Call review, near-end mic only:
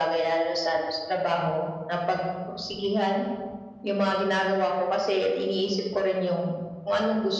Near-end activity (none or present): none